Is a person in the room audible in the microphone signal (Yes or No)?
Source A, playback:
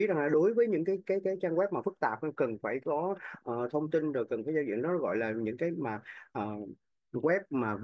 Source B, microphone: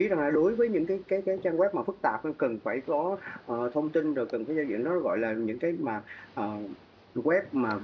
No